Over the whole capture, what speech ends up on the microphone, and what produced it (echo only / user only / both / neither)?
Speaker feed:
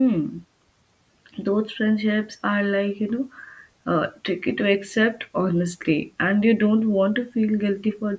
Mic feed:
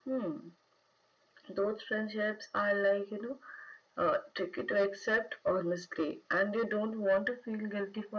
echo only